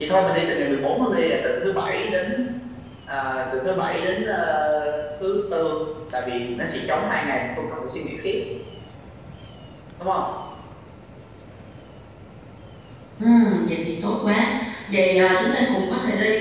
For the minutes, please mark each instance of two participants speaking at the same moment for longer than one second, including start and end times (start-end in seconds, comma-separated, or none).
none